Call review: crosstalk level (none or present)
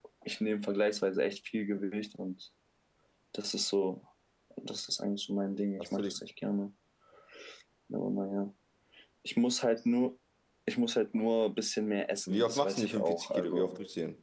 present